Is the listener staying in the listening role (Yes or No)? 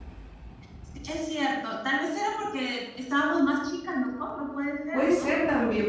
No